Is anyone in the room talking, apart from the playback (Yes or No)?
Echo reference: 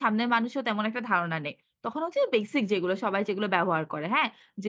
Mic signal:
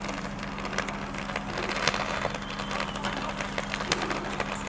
No